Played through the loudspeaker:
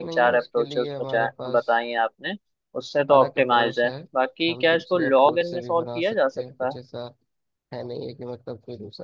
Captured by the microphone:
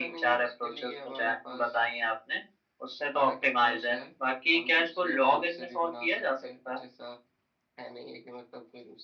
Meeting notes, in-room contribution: none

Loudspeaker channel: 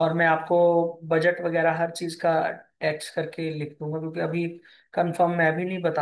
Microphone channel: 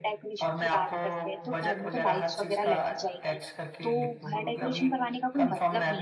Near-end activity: present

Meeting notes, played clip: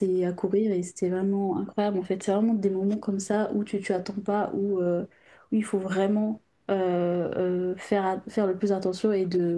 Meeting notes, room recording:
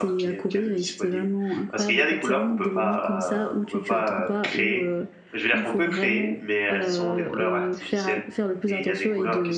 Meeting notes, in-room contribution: present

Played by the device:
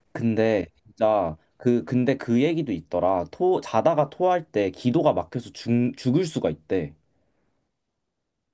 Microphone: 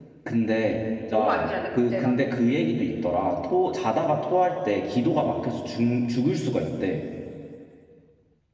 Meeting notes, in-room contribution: present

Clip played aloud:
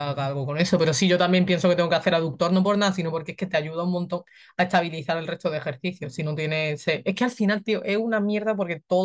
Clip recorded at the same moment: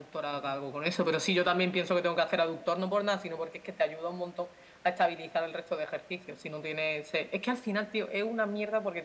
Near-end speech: none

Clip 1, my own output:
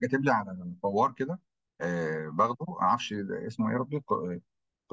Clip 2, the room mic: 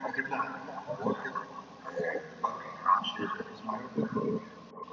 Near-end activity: none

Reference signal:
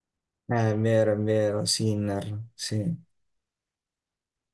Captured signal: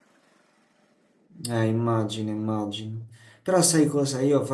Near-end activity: present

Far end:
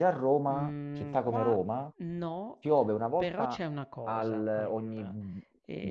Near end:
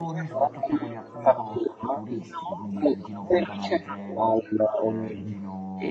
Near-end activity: present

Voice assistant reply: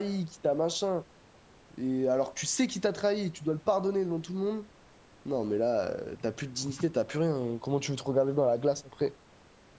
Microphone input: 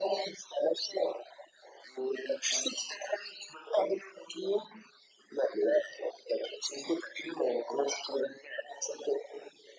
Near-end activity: none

